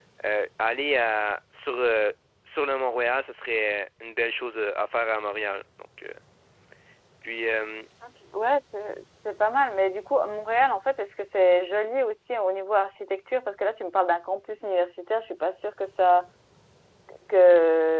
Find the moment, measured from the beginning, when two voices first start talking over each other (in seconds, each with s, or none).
none